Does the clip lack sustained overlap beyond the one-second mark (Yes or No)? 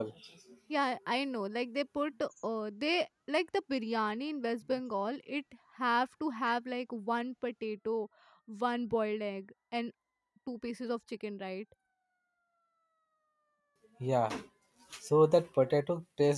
Yes